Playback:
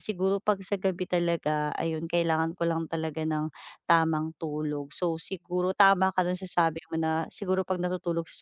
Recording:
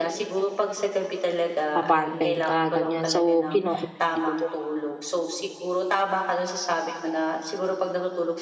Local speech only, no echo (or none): ah, part-time ka ganyan. So, kino-commend kita dun.